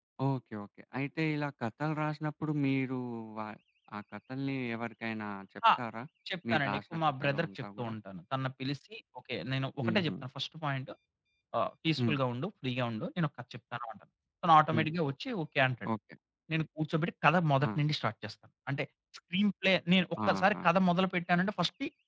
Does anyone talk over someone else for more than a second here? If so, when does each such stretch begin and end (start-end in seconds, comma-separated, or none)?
6.5-7.9